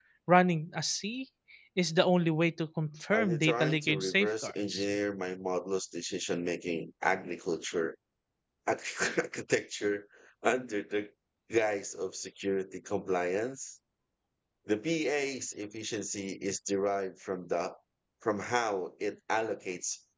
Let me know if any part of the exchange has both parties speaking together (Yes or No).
Yes